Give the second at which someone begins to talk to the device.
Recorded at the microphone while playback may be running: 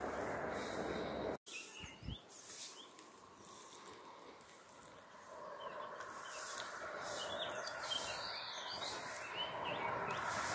none

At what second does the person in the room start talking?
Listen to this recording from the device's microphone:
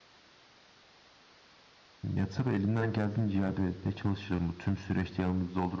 2.0 s

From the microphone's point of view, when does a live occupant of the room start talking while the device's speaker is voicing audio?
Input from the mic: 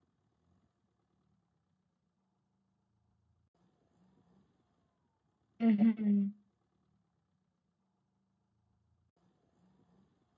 5.6 s

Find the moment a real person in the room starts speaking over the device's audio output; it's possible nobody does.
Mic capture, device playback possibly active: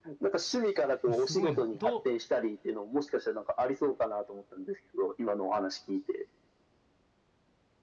1.1 s

